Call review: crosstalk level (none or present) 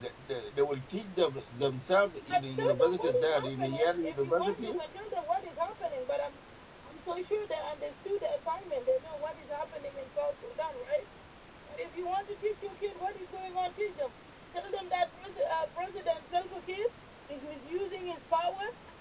present